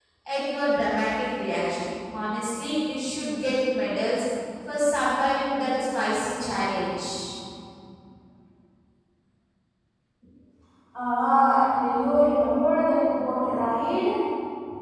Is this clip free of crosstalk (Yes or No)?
Yes